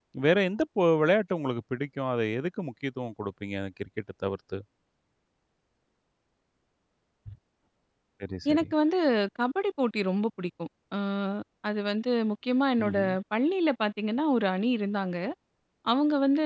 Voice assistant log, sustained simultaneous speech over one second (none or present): none